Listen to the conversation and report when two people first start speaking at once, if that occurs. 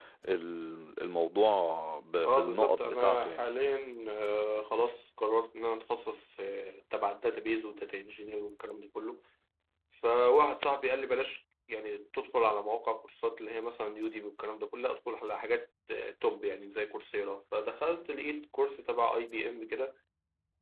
2.2 s

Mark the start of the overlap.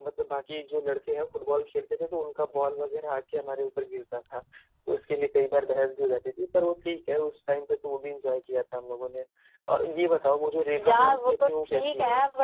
10.7 s

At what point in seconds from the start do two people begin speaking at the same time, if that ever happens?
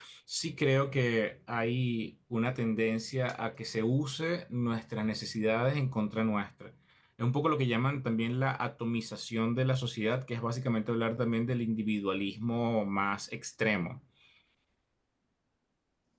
none

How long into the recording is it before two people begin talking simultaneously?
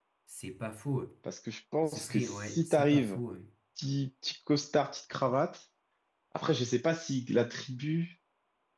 1.9 s

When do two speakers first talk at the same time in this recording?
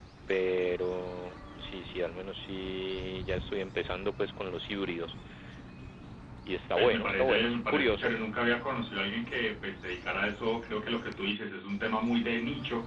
6.8 s

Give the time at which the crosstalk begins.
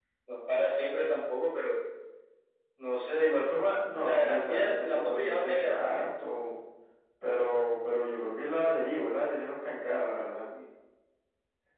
3.8 s

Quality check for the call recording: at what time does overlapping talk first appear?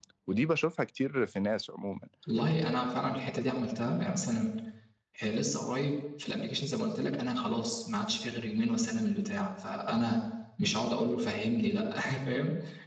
none

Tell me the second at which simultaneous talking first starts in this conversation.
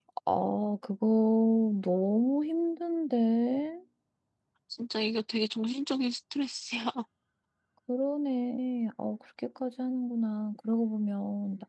none

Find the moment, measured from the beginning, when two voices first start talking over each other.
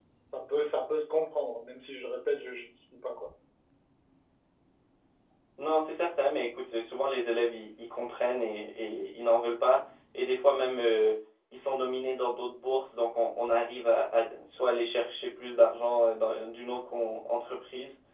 none

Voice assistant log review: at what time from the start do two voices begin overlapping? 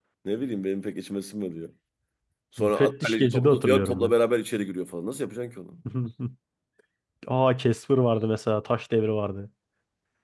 2.6 s

